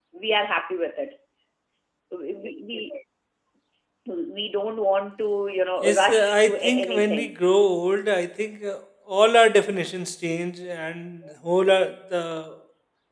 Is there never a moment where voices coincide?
No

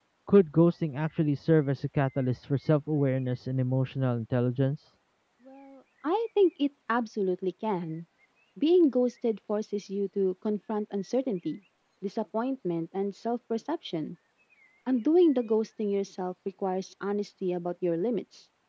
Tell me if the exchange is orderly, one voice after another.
Yes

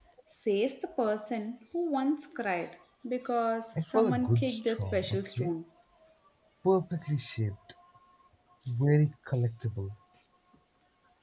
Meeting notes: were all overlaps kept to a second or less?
No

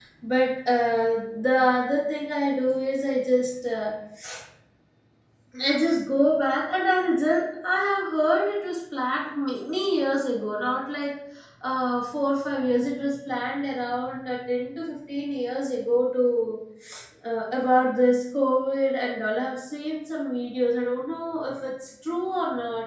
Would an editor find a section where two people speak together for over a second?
No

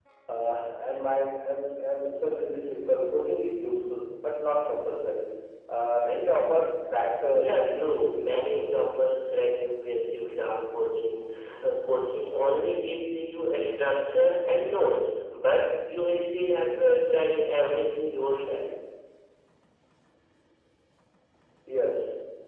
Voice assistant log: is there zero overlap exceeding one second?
No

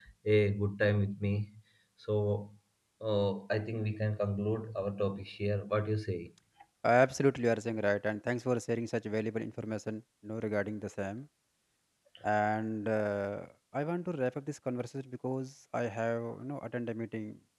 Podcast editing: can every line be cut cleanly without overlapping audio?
Yes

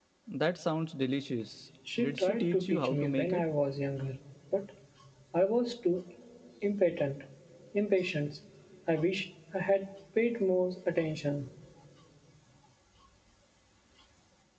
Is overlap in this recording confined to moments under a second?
No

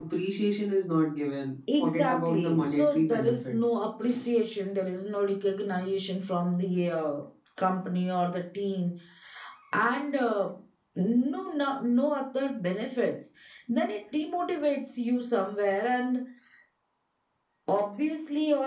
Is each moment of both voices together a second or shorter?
No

